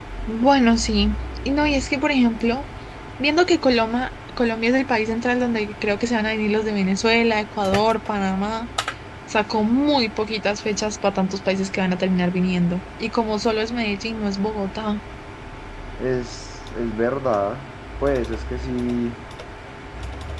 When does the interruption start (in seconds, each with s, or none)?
none